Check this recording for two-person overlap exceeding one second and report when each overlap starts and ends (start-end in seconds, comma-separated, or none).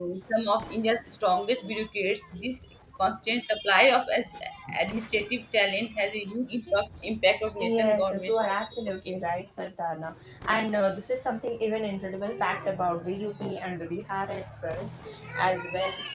7.6-9.2